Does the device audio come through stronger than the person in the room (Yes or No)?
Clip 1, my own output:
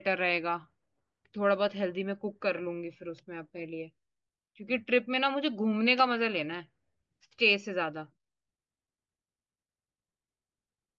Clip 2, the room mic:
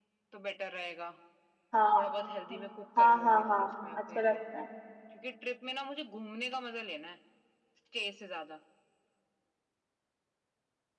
No